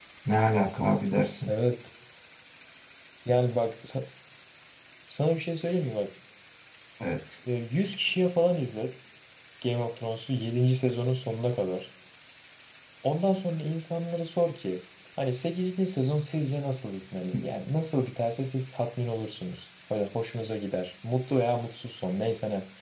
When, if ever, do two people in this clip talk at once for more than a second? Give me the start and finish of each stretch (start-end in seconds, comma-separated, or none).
none